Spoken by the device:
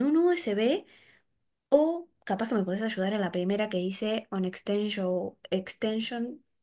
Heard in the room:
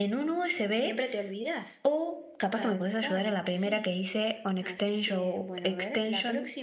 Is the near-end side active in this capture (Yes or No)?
Yes